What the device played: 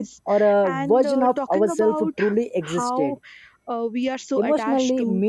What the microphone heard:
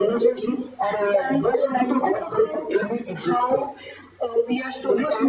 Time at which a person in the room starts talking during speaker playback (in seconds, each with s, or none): none